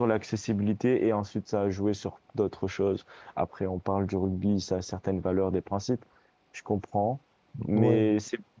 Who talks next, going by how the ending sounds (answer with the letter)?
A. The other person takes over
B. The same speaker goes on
B